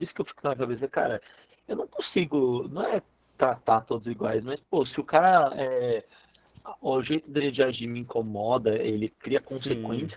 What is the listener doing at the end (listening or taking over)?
listening